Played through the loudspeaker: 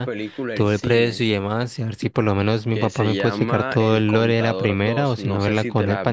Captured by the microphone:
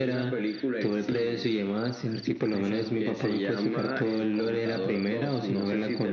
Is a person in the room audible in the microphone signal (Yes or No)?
Yes